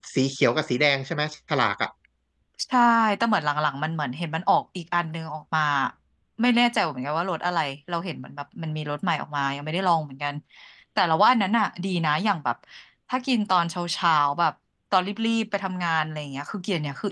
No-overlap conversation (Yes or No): Yes